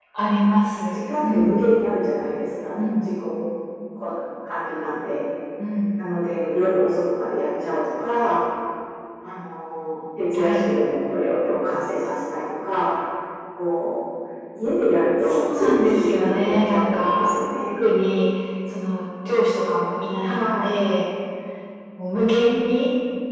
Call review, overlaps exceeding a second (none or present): present